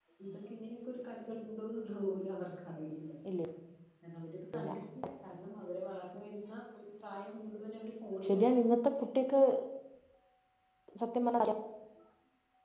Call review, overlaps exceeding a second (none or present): none